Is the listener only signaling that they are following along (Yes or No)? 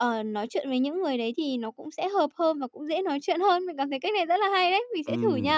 No